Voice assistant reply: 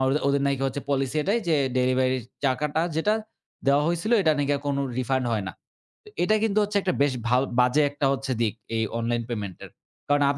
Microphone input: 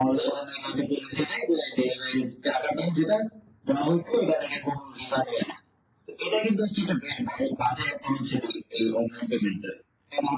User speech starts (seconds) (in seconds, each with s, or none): none